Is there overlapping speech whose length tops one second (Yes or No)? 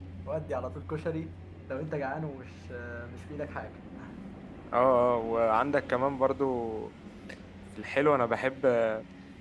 No